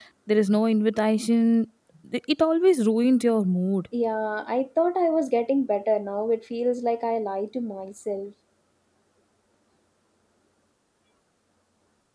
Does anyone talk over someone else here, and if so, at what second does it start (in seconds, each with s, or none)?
none